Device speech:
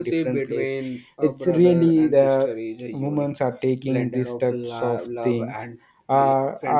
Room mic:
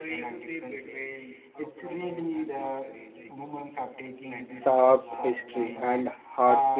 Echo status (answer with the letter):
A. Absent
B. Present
B